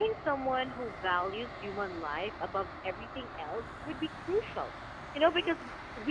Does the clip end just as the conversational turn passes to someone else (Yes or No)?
No